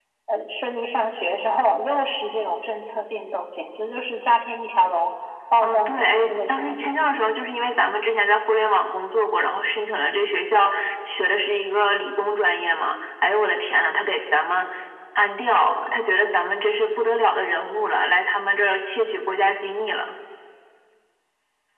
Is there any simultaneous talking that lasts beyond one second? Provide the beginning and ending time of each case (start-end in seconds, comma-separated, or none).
5.6-6.9